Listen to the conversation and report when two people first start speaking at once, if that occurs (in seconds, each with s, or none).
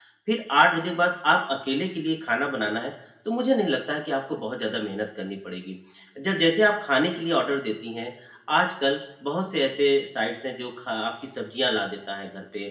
none